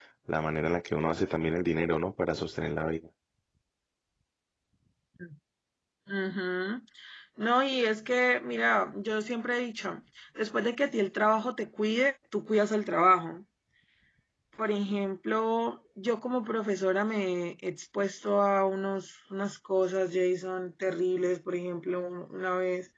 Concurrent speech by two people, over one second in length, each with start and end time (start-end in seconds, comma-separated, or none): none